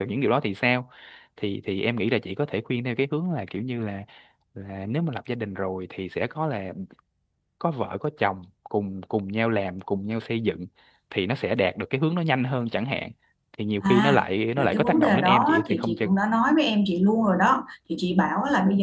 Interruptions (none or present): present